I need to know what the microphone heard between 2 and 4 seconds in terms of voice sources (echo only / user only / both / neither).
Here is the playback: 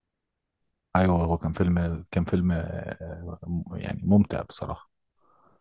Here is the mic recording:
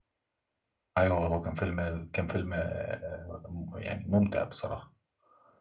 echo only